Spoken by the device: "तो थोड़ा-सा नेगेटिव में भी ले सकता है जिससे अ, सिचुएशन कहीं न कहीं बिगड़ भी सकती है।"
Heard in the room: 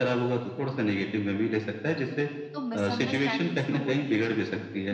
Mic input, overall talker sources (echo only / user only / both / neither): both